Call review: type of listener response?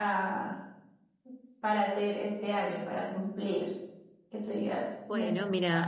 taking over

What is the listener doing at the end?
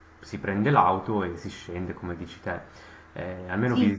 listening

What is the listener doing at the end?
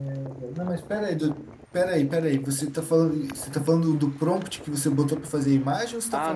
taking over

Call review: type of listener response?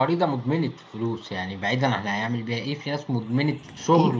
taking over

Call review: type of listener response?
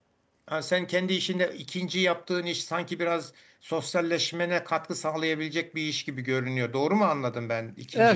taking over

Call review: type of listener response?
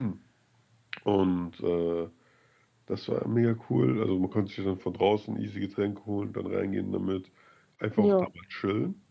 listening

